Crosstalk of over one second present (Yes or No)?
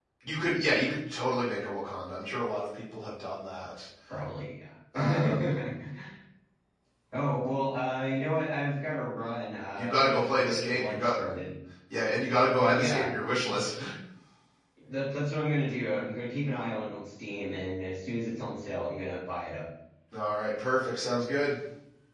Yes